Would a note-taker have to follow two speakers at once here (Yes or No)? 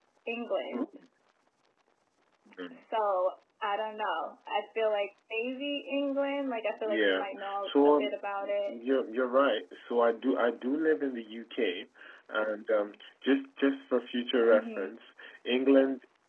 Yes